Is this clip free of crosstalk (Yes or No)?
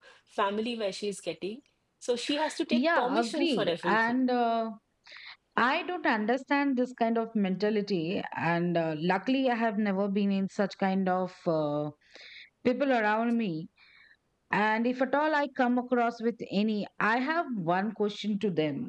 No